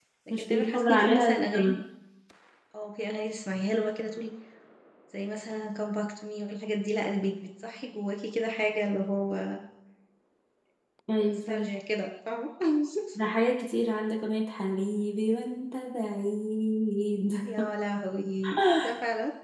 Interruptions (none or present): present